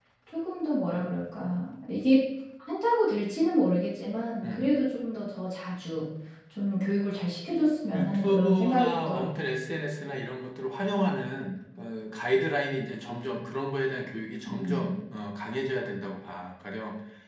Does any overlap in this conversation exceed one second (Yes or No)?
Yes